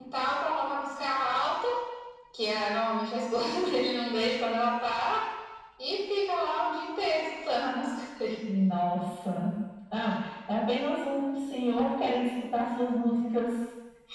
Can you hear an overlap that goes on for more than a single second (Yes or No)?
No